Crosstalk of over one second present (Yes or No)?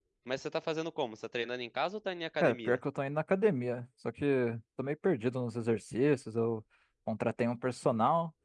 No